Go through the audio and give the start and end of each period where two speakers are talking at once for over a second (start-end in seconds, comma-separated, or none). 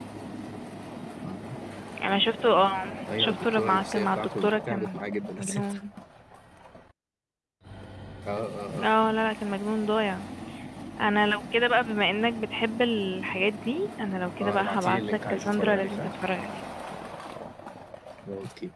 3.2-5.7, 14.4-16.1